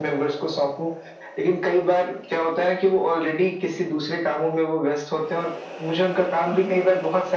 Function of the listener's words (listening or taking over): listening